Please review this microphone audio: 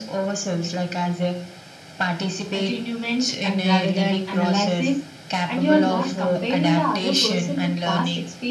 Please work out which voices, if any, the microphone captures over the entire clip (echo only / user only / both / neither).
both